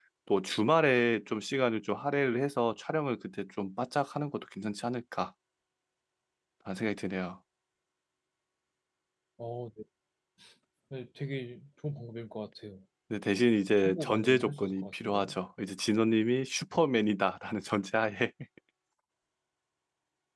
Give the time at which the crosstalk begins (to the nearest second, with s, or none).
14 s